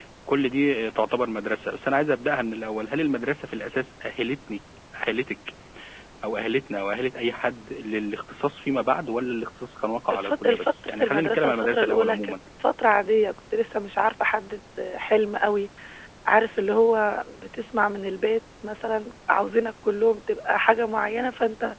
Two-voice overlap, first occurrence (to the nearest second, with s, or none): 10 s